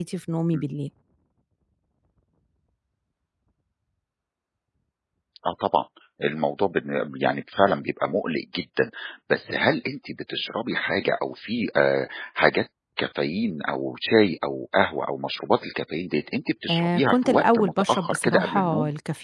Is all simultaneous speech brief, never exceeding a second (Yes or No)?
No